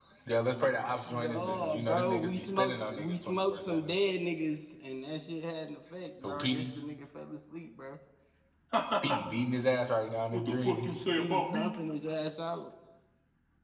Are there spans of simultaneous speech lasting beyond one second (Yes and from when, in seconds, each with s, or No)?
Yes, from 1.1 s